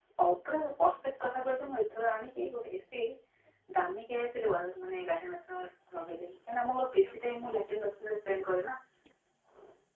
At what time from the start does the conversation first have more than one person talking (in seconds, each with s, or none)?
none